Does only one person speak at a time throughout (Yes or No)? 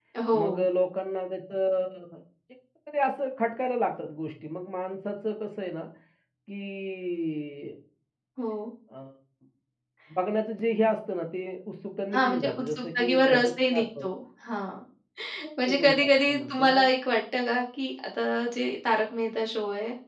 No